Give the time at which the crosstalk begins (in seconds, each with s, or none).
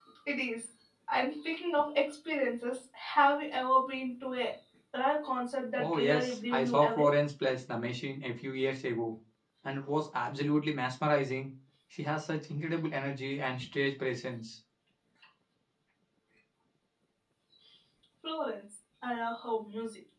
5.8 s